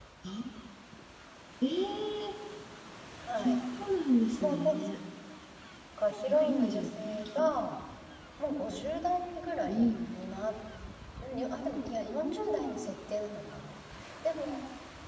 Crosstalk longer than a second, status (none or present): present